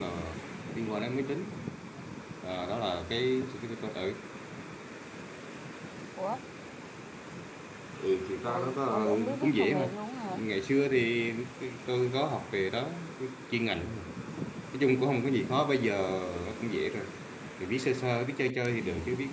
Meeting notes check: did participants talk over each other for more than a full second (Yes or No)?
Yes